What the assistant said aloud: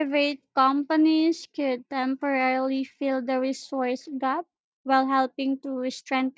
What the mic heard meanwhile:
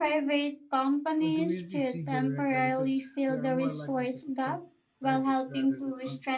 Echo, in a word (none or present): present